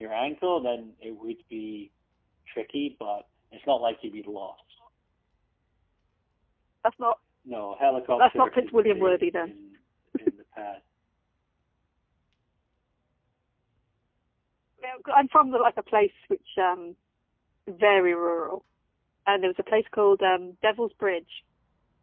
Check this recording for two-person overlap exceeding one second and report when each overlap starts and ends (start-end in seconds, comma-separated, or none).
8.2-9.5